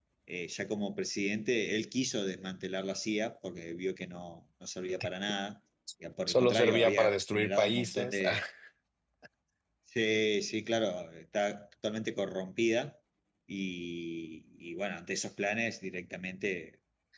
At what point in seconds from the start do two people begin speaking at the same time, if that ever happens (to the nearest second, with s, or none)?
6 s